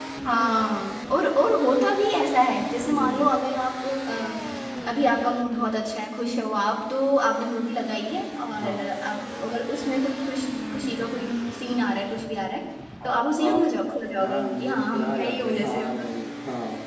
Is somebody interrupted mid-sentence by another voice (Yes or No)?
Yes